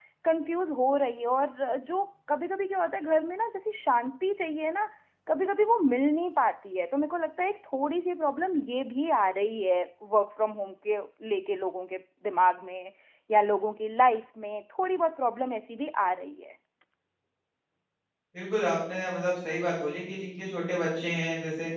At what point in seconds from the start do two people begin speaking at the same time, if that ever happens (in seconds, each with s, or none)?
none